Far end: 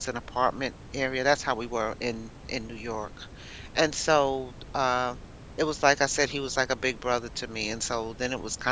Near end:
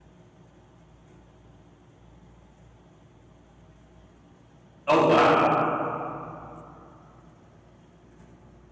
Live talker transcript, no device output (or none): Oh, wow.